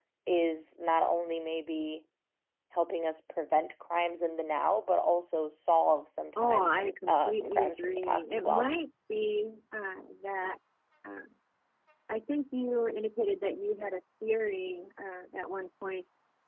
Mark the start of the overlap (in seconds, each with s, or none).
6.4 s